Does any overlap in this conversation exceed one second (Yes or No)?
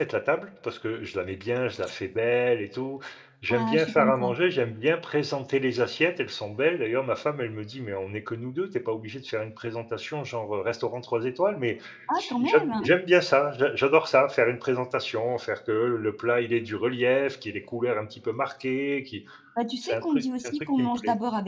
Yes